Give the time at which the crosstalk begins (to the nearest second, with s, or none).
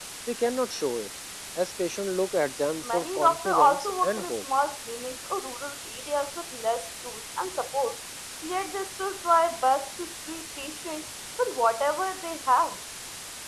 3 s